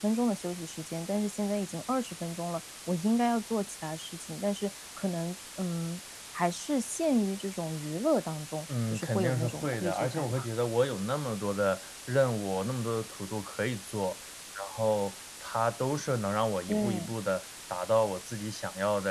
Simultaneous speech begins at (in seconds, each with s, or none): 8.9 s